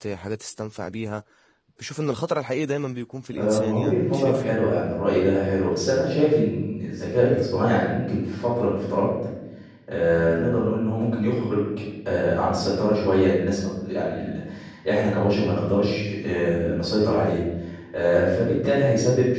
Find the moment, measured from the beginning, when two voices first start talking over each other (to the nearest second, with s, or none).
3 s